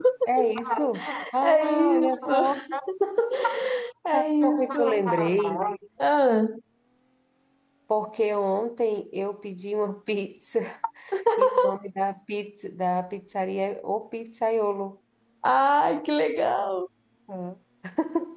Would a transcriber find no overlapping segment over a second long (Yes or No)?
No